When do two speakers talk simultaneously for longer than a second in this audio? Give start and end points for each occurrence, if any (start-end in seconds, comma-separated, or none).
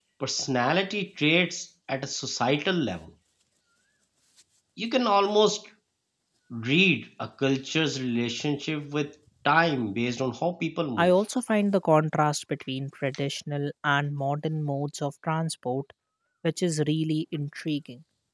none